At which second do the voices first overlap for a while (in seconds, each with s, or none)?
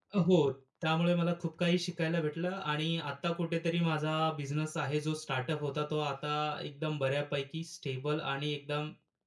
none